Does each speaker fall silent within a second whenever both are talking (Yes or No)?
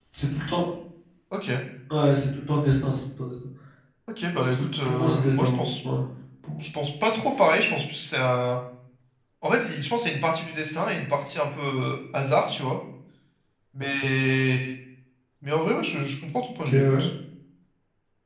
No